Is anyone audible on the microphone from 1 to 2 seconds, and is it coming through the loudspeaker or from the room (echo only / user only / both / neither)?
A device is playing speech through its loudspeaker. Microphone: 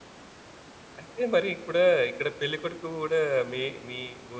user only